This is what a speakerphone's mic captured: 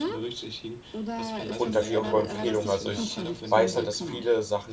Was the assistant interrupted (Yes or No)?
Yes